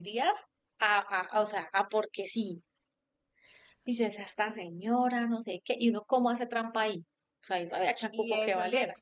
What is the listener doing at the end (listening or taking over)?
taking over